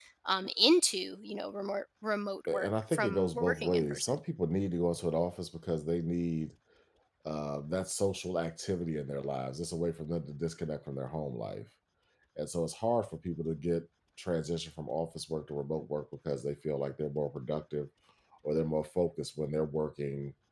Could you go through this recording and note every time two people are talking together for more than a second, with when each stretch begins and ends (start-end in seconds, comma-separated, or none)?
2.5-4.2